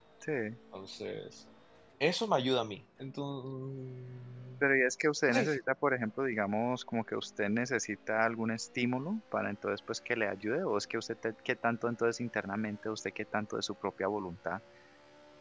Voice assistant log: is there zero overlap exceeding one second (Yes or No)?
Yes